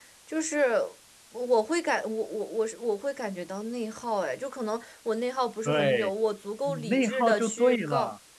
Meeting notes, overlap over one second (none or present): present